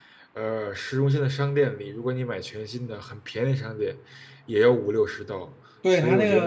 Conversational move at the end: taking over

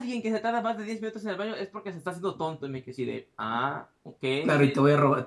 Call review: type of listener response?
taking over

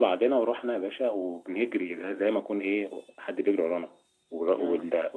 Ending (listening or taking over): listening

